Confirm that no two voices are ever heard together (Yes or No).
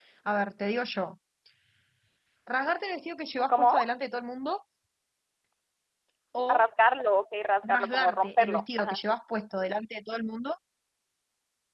No